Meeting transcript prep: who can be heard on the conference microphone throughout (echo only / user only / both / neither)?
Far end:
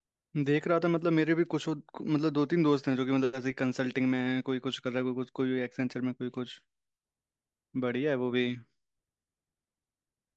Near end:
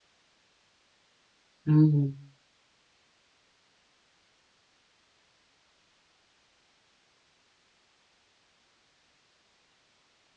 user only